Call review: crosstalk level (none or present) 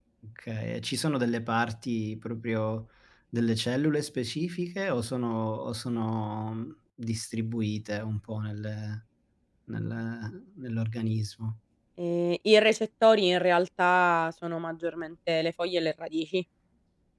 none